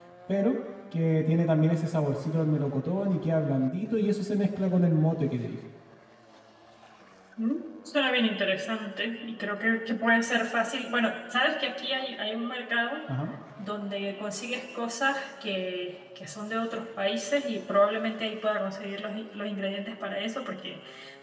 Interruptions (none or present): none